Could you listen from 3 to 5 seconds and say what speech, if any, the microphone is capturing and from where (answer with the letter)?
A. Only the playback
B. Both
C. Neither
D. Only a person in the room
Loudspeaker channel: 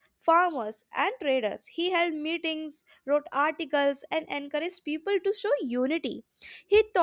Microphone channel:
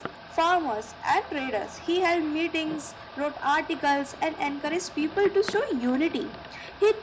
A